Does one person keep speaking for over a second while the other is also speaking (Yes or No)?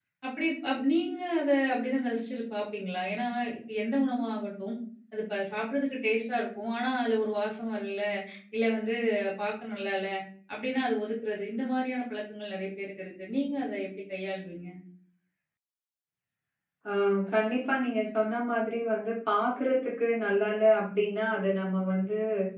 No